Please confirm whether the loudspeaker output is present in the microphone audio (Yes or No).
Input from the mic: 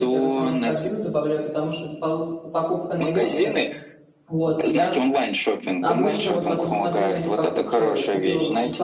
Yes